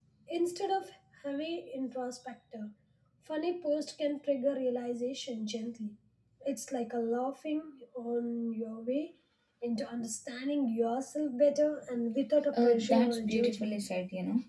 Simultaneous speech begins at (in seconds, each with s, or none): 12.5 s